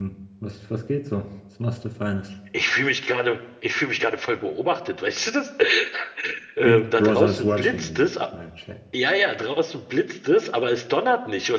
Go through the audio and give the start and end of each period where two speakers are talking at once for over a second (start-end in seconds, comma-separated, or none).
6.6-8.0